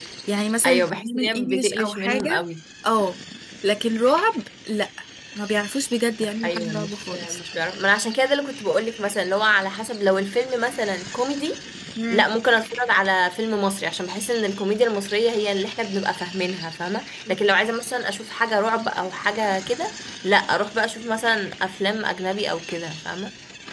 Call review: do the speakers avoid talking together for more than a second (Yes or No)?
No